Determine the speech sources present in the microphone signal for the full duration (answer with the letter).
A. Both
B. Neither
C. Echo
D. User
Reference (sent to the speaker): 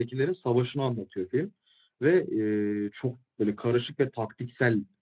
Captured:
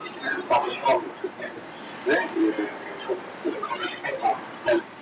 C